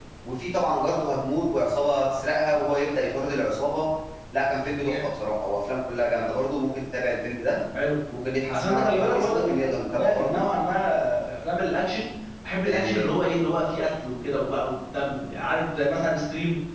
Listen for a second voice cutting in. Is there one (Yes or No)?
Yes